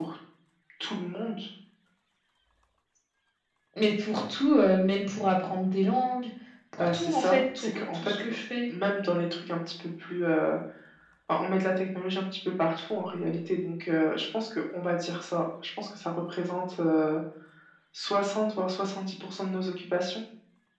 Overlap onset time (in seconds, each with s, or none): 6.8 s